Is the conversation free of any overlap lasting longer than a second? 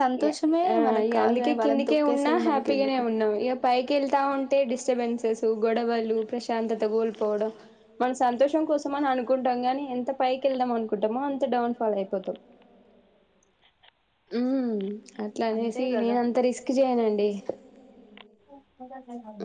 No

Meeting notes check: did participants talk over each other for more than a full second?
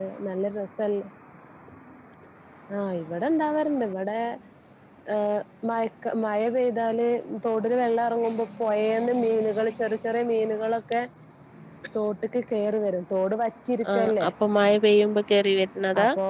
No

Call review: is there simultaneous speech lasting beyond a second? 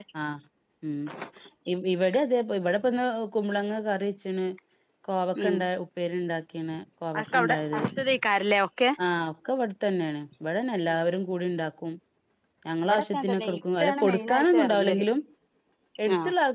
Yes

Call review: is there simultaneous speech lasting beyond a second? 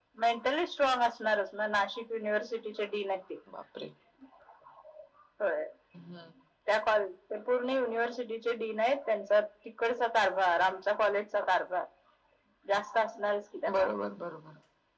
No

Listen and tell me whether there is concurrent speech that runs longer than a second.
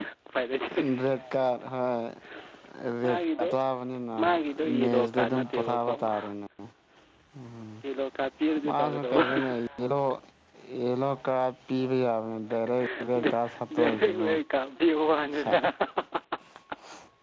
Yes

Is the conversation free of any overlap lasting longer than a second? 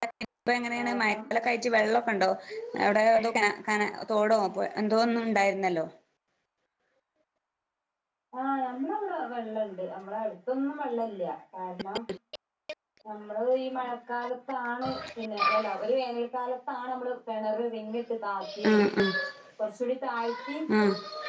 Yes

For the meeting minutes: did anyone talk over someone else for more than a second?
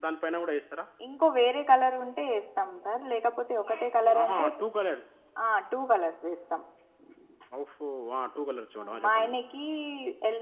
No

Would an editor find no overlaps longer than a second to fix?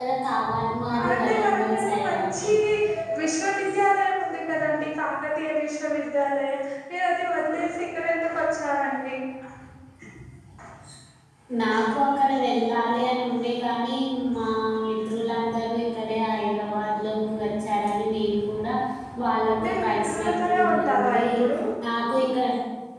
No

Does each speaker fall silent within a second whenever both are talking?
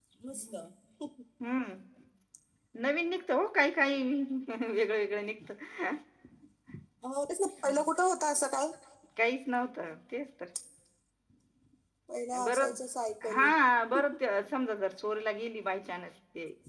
Yes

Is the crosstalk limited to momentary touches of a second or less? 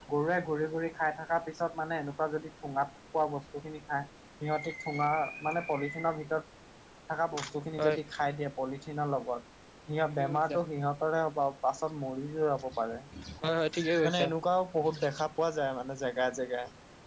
Yes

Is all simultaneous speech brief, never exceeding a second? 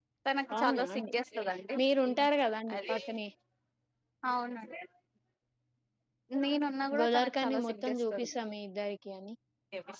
No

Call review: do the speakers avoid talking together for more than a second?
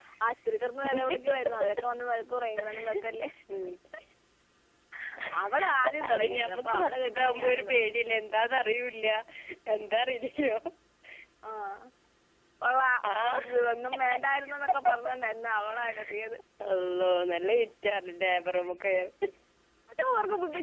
No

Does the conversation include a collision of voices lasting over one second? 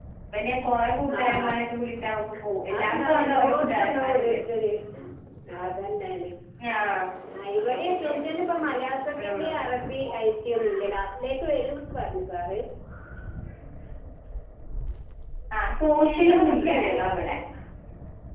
Yes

